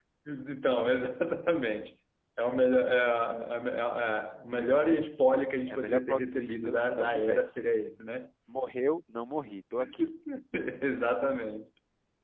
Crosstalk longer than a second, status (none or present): present